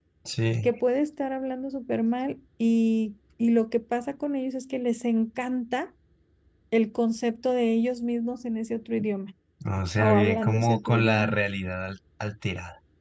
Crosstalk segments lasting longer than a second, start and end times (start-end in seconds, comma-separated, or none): 10.0-11.3